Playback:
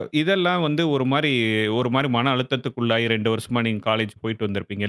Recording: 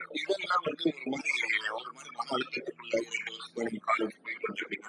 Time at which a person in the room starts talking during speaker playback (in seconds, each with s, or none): none